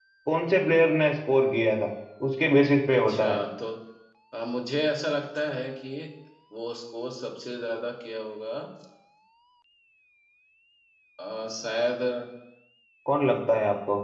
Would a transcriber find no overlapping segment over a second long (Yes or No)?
Yes